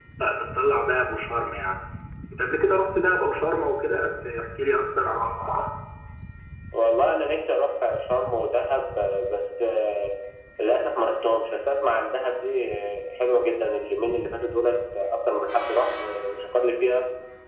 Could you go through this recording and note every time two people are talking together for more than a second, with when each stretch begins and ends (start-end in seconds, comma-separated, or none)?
none